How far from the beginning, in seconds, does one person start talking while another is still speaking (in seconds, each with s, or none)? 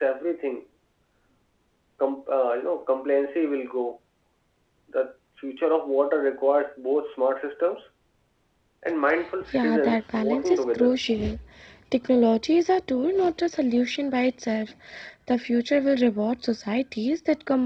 9.5 s